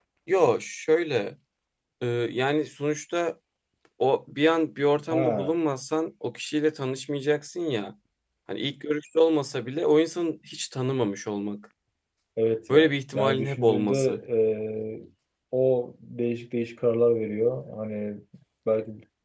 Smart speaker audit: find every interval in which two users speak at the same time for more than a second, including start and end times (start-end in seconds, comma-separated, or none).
12.7-14.0